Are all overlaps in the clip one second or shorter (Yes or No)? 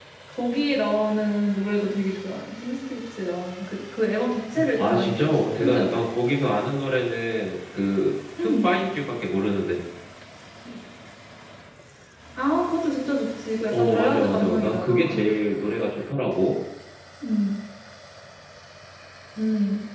No